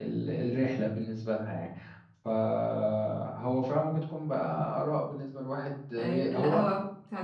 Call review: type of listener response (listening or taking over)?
taking over